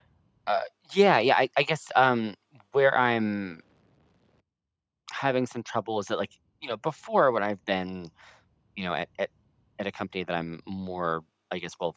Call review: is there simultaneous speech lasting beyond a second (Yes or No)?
No